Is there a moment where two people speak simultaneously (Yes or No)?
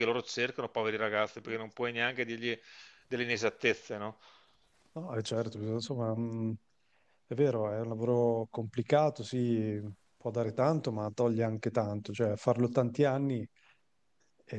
No